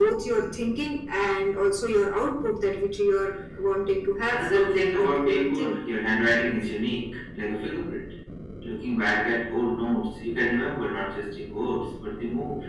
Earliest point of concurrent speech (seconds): 4 s

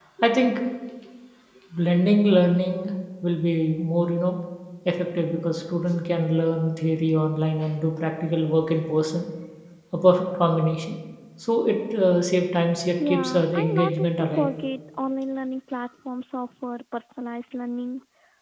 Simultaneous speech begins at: 13 s

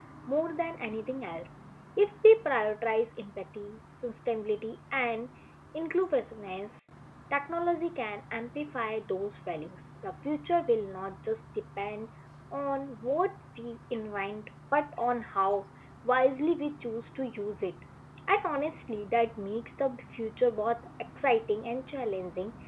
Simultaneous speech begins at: none

